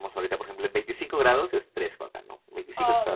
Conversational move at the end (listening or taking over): taking over